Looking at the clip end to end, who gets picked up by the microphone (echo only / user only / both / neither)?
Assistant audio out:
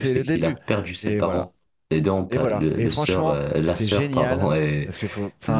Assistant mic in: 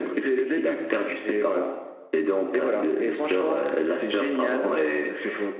echo only